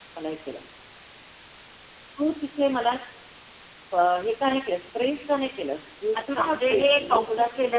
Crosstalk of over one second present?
Yes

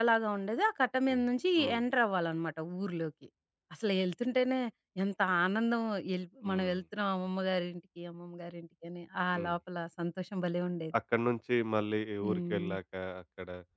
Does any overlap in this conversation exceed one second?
No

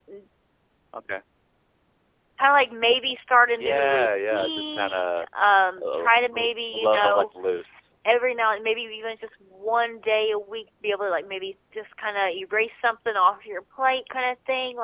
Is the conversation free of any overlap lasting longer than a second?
No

